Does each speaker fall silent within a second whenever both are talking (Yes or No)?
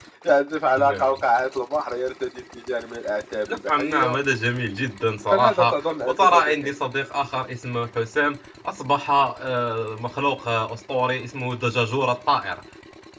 No